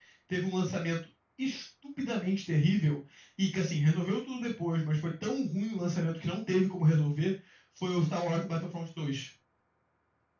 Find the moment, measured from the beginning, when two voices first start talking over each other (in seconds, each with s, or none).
none